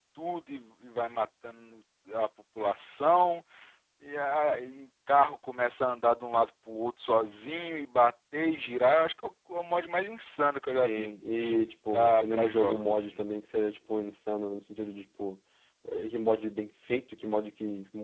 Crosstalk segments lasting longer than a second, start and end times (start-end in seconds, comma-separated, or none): 11.9-13.1